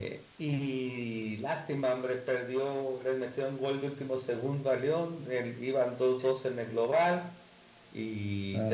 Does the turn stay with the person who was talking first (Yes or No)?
Yes